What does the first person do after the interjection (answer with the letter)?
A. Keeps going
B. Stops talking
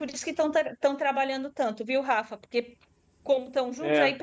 A